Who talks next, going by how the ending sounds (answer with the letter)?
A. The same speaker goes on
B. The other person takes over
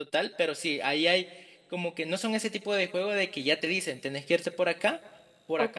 B